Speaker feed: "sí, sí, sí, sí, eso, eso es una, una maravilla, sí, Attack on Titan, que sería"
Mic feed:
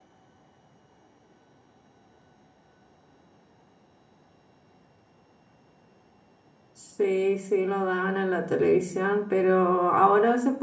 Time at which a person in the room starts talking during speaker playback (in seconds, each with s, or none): 6.7 s